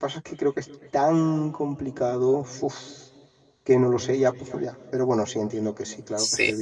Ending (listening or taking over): taking over